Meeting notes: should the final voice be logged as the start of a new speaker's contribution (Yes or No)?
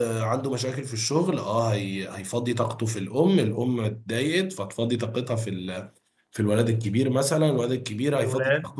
No